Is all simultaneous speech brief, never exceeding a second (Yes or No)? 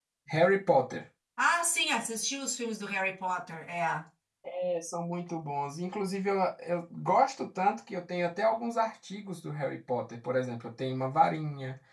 Yes